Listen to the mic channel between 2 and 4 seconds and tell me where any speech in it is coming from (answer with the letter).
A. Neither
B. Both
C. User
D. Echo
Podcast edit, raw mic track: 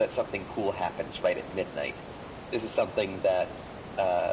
D